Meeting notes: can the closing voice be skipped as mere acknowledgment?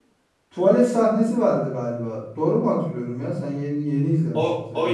No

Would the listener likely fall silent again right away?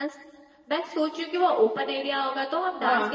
Yes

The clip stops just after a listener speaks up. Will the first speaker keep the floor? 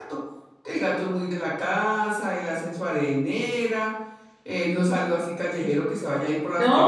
Yes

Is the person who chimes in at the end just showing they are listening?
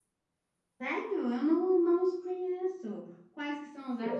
No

